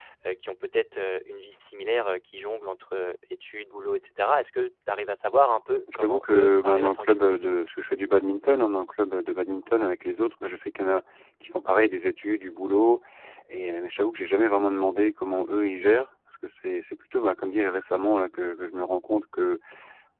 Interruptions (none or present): present